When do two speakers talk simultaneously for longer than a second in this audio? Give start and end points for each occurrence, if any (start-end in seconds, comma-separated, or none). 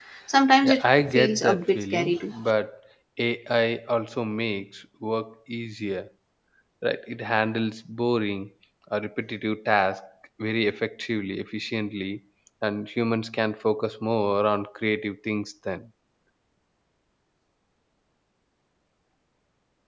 0.6-2.3